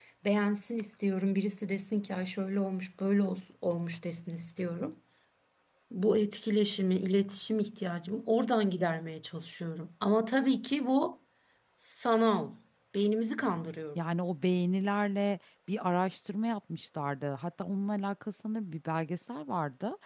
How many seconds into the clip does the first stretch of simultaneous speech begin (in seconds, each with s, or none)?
none